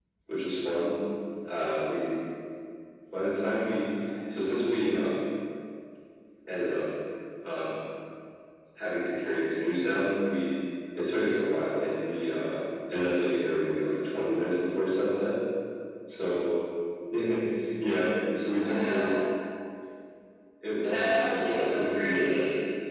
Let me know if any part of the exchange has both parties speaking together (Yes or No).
Yes